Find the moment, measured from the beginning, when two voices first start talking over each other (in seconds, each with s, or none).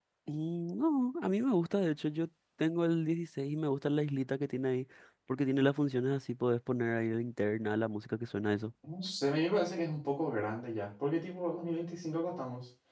none